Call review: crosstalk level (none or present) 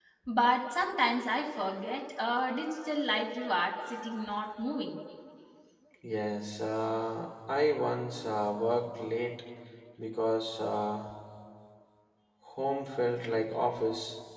none